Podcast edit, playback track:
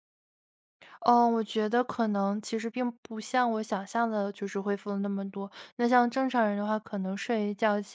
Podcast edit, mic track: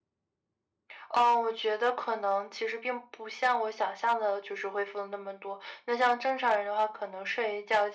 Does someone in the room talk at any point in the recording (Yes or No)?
No